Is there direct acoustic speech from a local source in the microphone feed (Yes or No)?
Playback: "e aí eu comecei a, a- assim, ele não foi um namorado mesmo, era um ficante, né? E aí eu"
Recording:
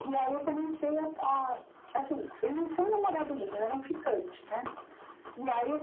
No